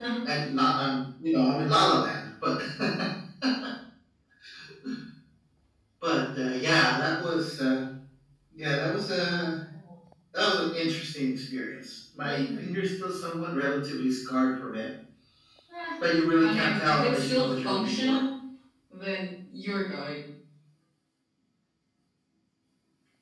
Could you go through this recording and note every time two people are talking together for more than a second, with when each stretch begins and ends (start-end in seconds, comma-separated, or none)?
16.4-18.2